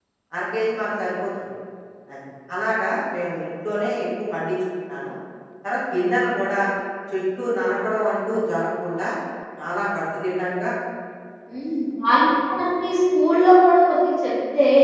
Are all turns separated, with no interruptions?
Yes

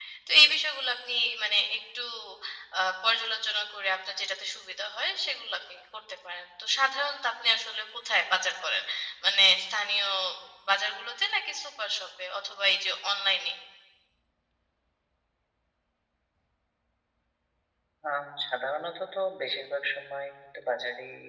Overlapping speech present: No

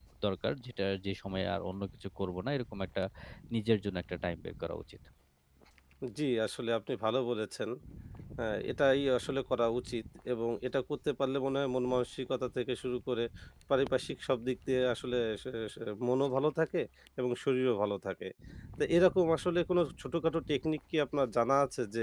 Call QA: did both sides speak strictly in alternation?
Yes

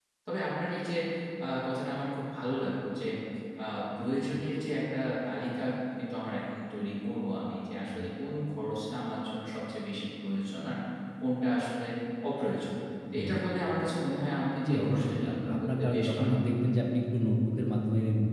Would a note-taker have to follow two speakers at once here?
Yes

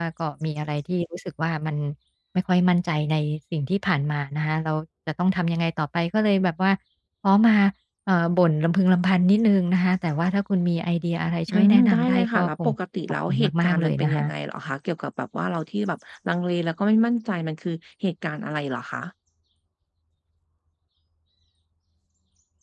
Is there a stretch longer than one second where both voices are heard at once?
Yes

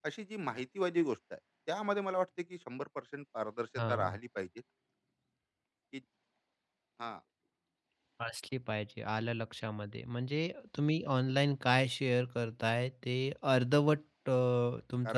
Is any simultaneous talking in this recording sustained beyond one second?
No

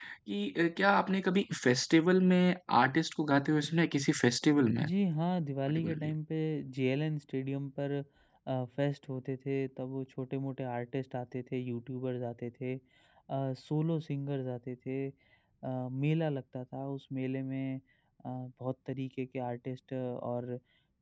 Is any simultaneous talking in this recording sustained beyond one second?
No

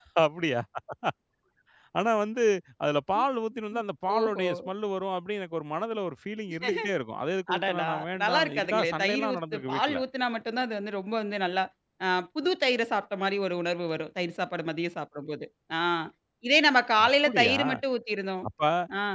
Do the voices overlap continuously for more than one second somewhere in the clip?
Yes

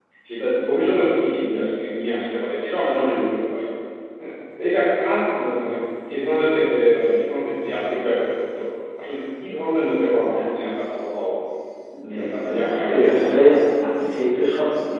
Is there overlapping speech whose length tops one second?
Yes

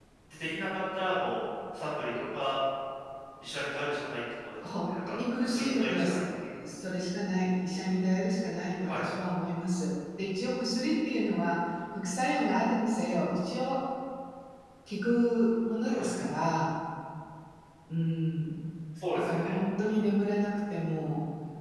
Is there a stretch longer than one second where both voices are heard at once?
Yes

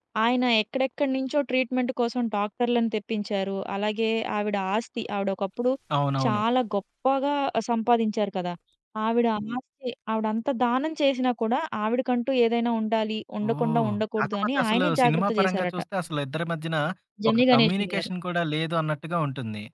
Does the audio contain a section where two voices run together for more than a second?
Yes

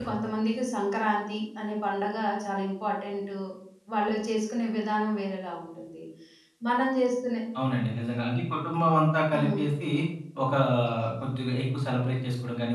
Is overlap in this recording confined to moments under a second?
Yes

